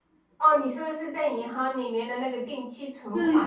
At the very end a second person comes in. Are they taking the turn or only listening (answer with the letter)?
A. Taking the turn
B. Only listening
A